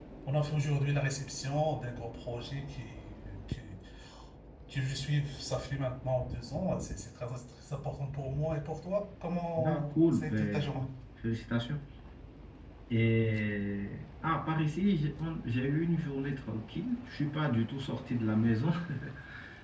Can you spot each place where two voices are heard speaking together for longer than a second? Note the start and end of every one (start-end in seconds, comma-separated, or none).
9.6-10.9